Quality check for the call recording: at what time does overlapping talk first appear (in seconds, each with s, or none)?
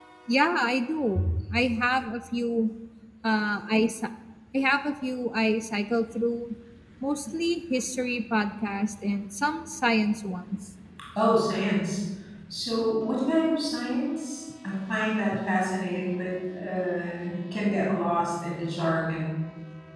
none